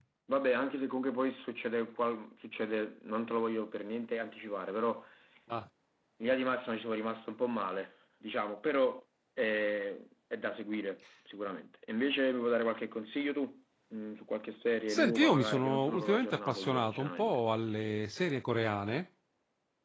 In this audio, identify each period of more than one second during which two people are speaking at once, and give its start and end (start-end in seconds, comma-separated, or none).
14.9-17.4